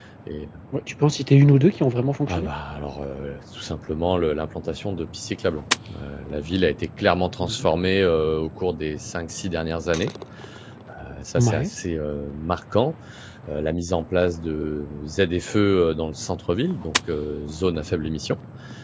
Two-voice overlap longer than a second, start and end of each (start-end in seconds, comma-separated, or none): none